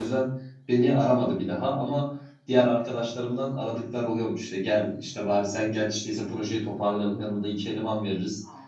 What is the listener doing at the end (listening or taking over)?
listening